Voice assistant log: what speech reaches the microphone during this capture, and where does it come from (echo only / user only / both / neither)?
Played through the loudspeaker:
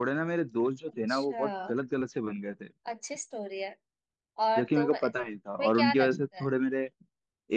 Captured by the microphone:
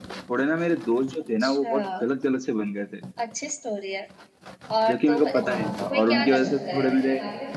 both